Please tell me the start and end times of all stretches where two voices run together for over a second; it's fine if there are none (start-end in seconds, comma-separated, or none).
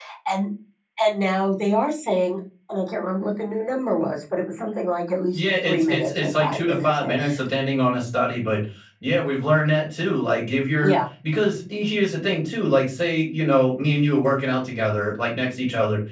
5.3-7.2